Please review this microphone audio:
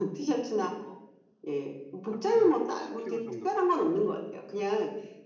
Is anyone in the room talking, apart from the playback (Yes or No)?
Yes